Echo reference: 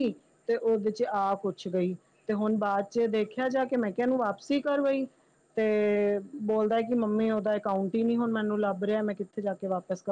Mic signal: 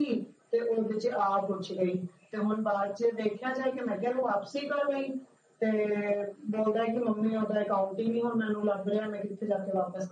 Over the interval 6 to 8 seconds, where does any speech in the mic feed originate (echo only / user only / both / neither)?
echo only